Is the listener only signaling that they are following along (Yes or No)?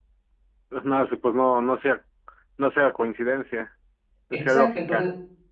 No